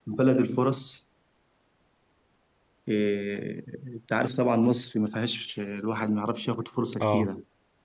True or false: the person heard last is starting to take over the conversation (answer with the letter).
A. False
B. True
A